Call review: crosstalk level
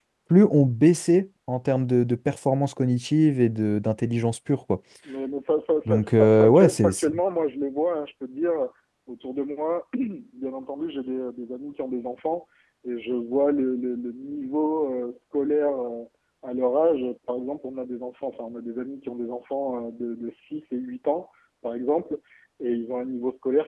present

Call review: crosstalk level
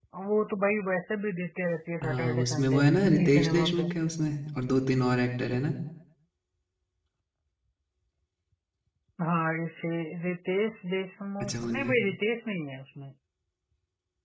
present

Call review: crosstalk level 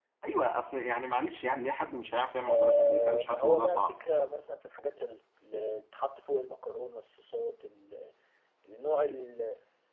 present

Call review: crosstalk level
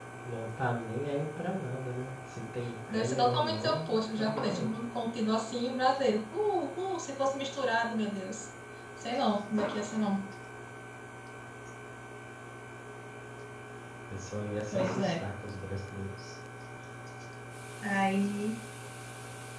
present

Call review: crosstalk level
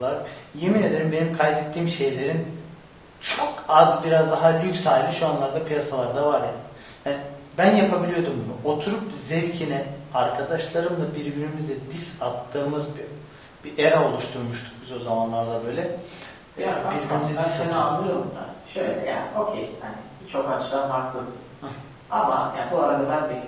present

